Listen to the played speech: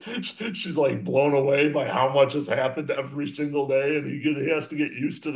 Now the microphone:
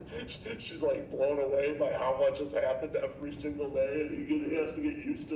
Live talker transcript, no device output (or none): none